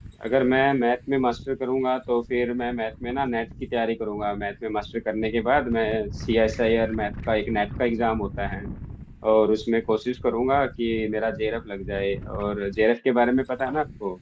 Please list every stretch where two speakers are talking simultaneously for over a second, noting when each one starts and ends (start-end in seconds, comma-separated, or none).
none